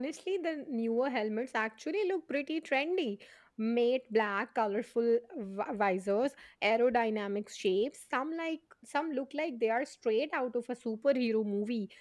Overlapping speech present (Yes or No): No